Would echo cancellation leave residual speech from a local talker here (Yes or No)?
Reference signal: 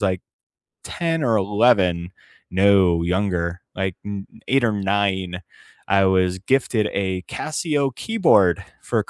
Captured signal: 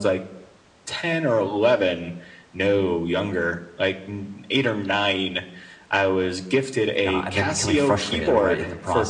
Yes